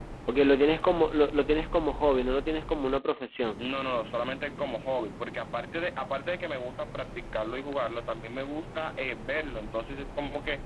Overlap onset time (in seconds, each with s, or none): none